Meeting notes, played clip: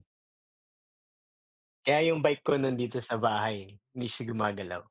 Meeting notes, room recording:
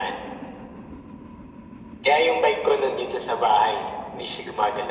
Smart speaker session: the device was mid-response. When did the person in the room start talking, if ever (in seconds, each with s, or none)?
none